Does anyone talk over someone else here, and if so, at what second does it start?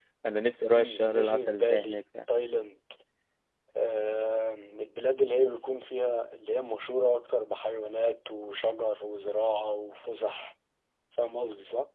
0.8 s

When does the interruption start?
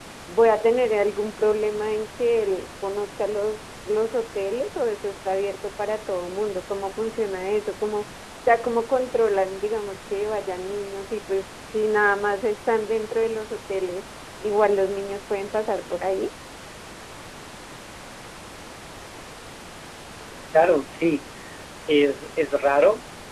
none

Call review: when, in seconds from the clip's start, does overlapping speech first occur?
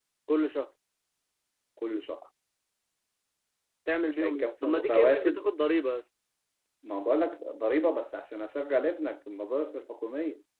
4.1 s

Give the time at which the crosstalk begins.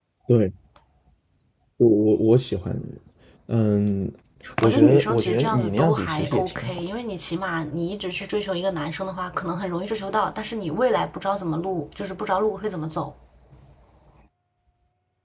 4.6 s

